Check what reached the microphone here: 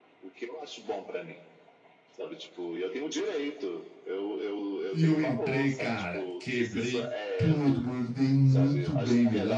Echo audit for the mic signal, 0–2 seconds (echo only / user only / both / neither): echo only